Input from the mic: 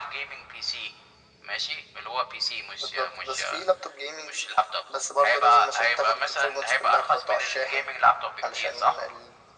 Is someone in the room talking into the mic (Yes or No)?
No